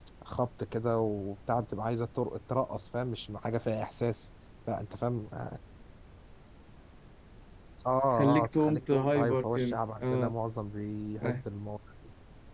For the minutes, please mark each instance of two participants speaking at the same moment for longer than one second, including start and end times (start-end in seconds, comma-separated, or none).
8.2-10.3